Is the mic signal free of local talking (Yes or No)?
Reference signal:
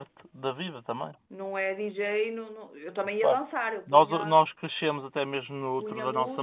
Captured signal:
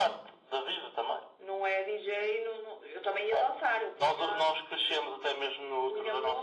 Yes